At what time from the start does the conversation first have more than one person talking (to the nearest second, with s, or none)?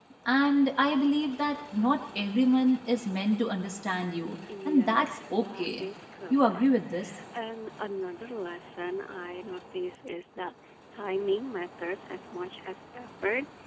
5 s